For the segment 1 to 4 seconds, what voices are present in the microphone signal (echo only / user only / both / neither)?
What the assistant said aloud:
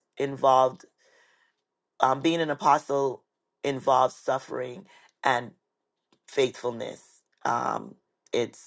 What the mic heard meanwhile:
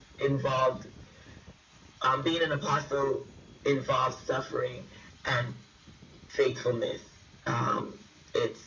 echo only